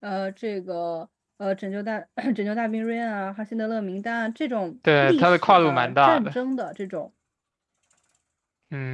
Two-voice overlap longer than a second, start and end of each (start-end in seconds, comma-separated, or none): 5.0-6.3